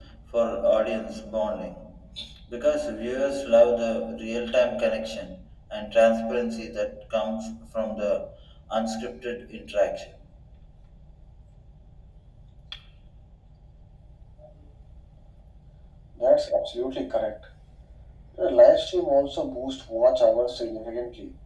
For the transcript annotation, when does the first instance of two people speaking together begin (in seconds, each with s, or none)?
none